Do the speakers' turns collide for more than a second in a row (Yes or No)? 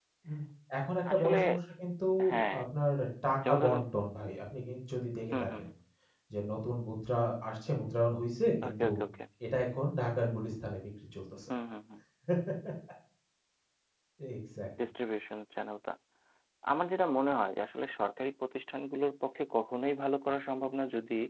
No